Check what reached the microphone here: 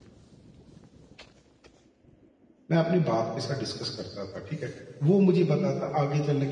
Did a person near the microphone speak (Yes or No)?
Yes